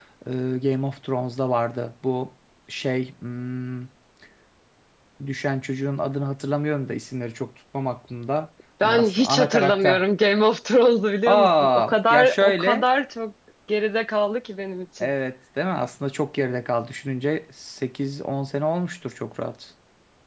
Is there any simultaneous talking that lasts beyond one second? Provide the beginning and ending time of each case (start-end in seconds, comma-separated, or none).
8.8-10.0, 11.3-12.8